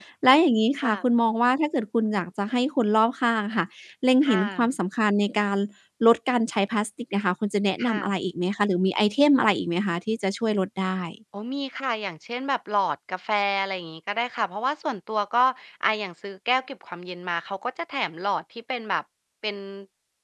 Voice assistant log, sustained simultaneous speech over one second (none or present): none